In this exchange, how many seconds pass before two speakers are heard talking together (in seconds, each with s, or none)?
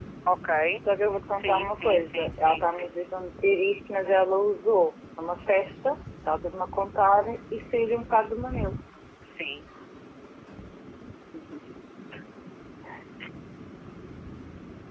1.3 s